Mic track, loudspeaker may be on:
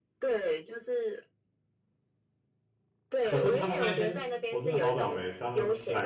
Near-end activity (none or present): present